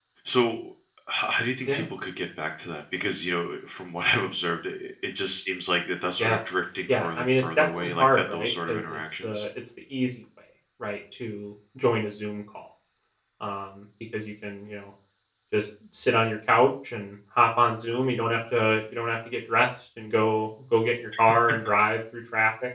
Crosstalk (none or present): present